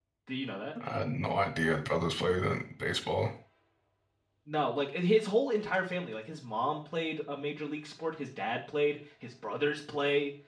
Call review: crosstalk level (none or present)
none